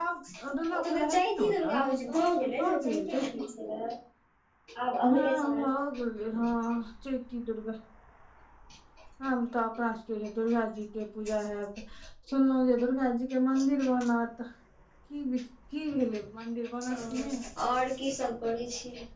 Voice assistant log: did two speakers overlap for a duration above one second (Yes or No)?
Yes